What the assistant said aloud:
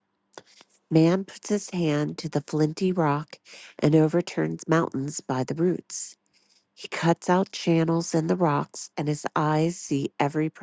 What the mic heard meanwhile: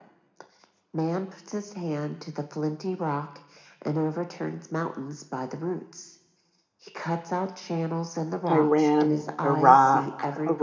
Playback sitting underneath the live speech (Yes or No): Yes